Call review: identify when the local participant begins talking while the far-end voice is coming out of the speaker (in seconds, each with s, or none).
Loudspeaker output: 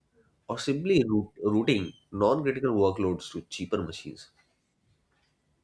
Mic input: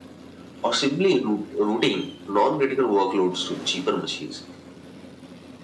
none